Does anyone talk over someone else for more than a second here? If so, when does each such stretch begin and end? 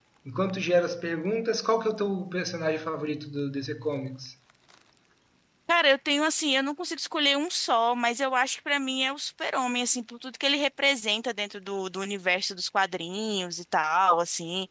none

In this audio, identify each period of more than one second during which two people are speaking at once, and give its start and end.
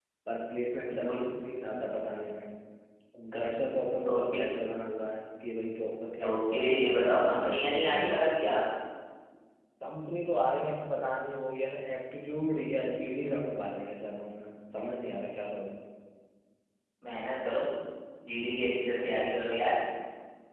6.2-8.3

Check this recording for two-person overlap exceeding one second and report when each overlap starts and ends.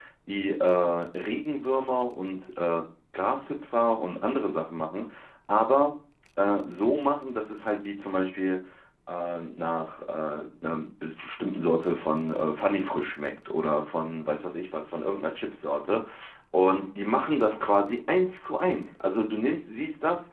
none

